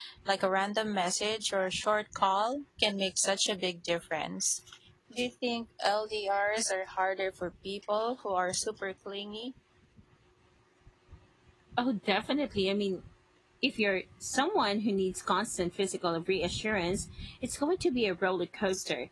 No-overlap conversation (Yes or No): Yes